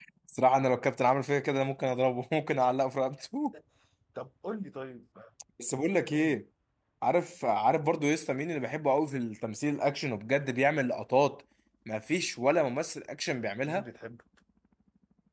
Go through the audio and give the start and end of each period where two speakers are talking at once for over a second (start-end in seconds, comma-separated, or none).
none